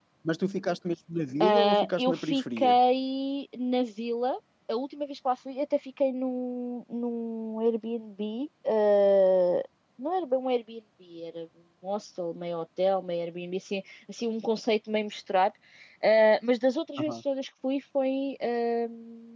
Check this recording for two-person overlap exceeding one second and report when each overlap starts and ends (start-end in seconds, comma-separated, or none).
1.4-2.8